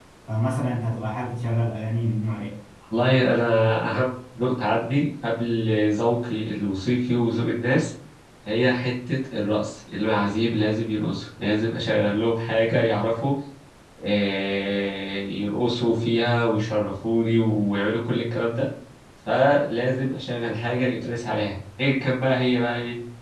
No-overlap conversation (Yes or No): Yes